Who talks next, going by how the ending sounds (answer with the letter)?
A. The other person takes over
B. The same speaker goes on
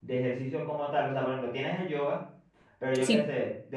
B